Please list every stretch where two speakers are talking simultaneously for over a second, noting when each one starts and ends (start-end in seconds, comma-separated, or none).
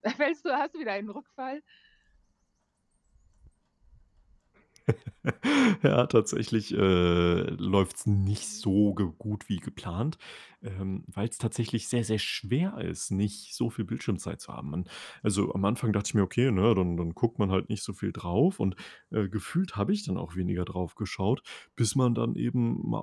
none